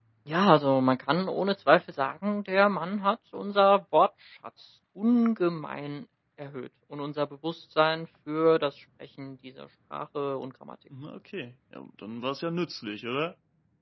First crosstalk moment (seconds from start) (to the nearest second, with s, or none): none